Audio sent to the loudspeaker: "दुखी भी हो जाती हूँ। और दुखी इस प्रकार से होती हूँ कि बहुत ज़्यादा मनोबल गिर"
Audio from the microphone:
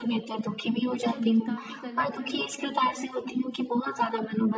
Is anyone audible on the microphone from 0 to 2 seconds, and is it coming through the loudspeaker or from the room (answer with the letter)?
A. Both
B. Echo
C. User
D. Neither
A